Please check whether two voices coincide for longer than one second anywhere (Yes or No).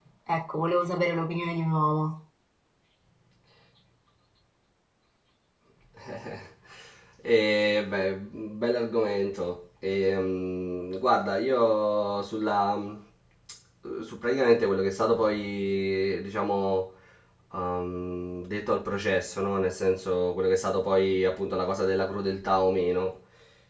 No